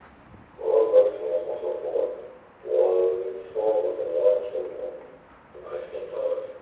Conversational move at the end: taking over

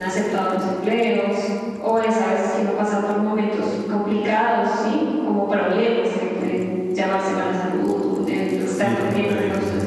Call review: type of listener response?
taking over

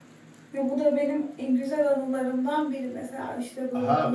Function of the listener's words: taking over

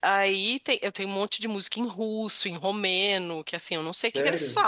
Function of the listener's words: listening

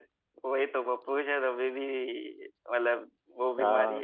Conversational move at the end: taking over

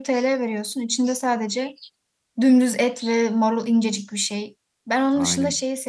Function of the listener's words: listening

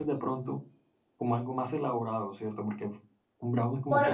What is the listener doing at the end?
taking over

